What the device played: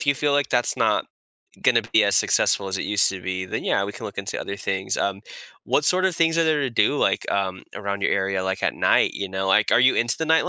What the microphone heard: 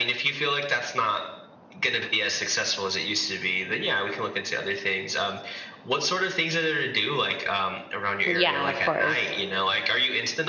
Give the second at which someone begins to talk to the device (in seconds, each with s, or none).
8.2 s